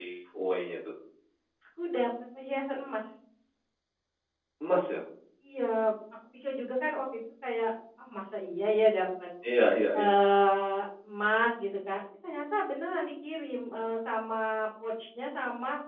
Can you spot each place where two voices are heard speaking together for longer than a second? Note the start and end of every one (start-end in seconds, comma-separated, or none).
none